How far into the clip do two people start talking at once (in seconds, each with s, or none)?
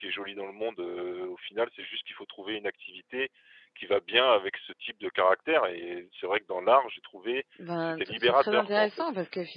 7.6 s